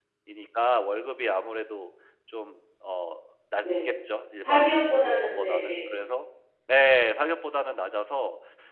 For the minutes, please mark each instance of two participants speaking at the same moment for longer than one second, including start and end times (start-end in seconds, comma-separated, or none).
4.4-5.8